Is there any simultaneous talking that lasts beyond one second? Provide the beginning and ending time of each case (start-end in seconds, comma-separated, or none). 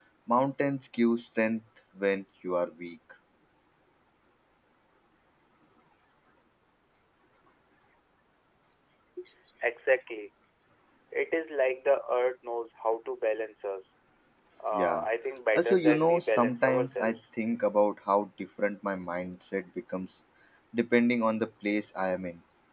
15.6-17.2